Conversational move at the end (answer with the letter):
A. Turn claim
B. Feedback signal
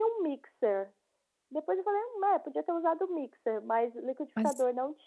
B